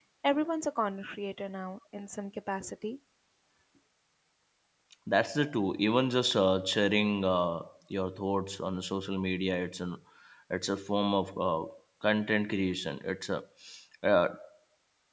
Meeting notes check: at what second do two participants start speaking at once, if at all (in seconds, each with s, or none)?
none